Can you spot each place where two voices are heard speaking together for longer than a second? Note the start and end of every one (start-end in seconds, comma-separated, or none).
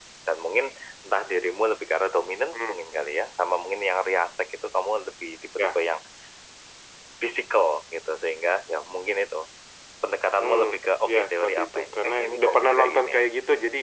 11.1-13.2